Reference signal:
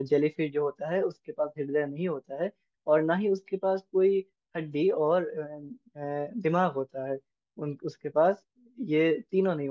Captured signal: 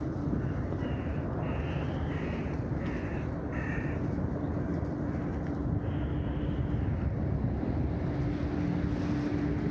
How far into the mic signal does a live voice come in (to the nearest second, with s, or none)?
none